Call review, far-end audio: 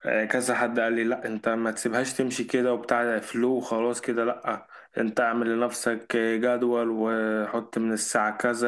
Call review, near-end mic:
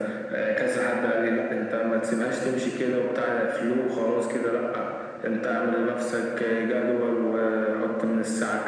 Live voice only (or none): none